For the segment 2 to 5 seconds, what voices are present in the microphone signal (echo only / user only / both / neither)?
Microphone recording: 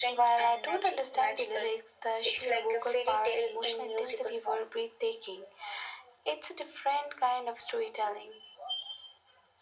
echo only